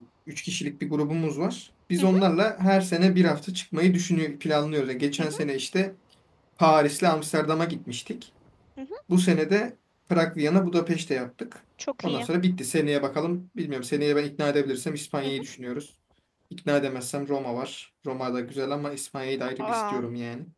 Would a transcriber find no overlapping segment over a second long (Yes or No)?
Yes